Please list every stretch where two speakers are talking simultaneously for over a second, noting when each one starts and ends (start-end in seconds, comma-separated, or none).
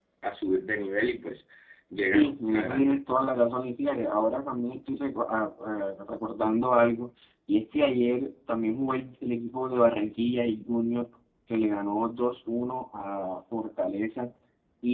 2.1-3.3